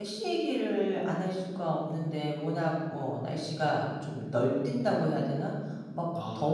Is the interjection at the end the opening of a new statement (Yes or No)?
No